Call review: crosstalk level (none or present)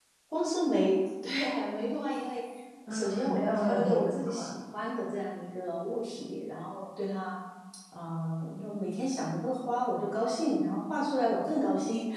present